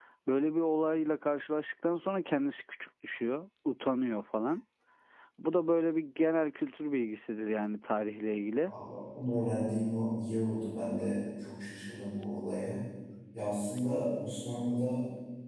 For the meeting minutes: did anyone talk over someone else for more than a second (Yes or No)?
No